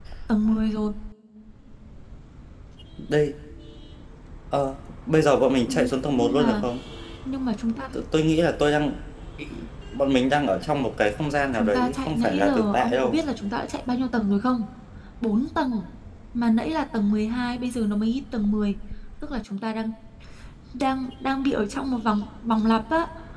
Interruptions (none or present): present